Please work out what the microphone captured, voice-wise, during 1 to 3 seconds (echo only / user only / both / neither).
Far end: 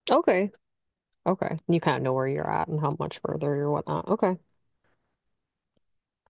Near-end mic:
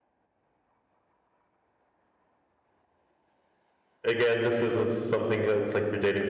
neither